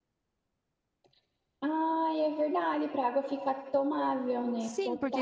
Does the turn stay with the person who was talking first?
No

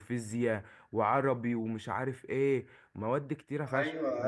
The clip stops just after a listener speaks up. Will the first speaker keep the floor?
No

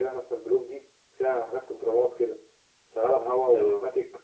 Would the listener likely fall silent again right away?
Yes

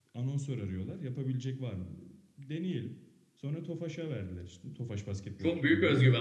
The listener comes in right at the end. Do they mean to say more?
Yes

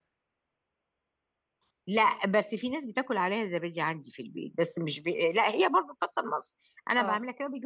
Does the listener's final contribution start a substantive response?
No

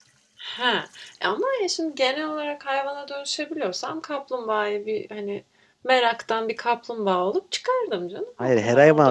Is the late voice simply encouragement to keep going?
No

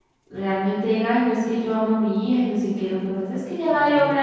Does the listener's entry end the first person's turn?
No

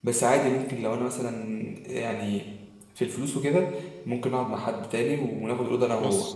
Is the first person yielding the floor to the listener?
No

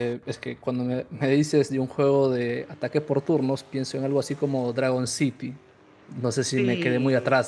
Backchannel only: Yes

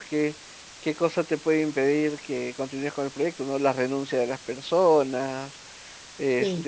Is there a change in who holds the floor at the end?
No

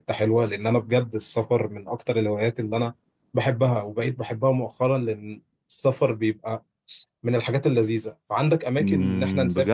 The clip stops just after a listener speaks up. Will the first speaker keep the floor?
No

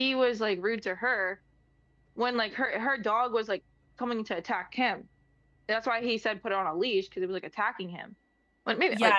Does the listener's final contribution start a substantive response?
Yes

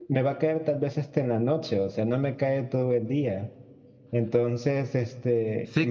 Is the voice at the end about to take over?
Yes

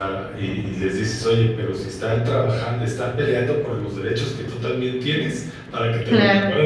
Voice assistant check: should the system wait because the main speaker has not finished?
Yes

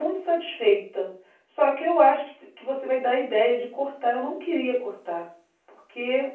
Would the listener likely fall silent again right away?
Yes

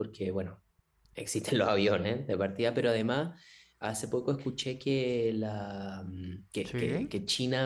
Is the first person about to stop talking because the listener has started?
No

